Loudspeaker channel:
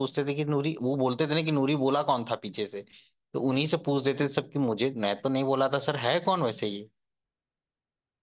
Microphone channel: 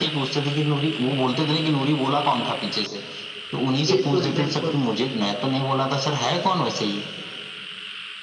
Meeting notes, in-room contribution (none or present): present